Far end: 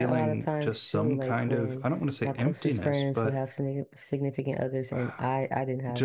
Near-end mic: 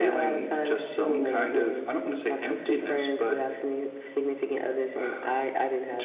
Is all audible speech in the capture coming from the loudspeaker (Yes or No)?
No